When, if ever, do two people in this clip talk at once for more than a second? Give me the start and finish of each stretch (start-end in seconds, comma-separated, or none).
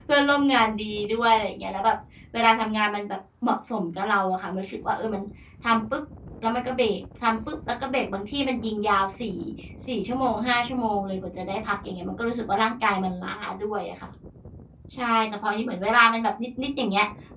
none